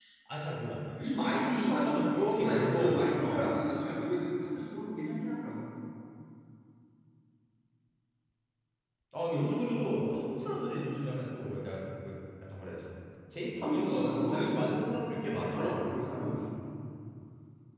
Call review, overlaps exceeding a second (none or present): present